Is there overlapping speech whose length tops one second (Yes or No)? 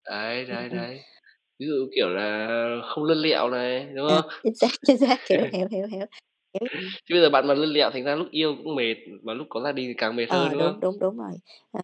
No